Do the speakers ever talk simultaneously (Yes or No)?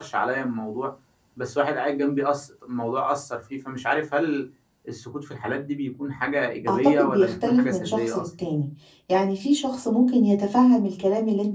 Yes